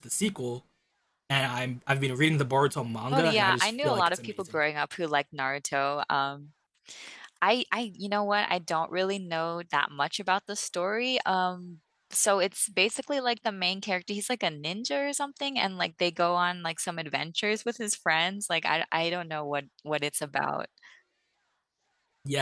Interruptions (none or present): present